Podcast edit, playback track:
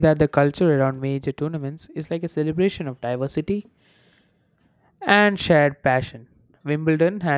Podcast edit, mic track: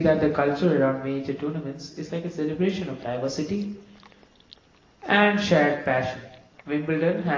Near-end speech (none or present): none